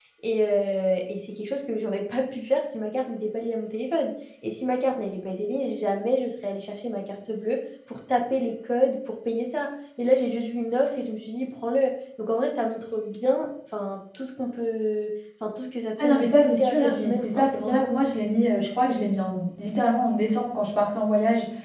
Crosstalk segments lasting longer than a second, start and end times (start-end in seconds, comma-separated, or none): 16.0-17.9